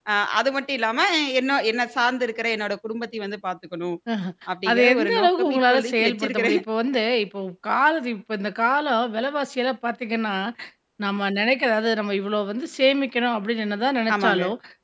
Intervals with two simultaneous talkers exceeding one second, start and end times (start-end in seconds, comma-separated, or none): 4.7-6.6